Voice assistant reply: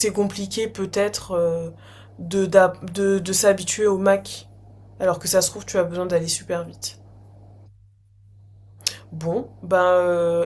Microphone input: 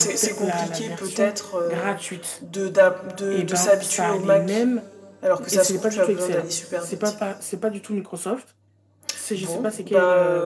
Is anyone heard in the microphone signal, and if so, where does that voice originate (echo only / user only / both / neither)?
both